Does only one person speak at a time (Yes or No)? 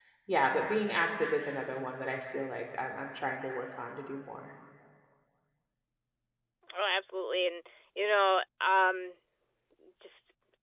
Yes